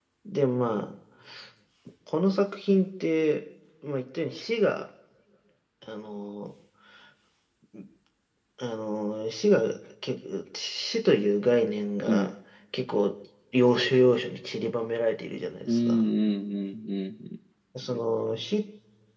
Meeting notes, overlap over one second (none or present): none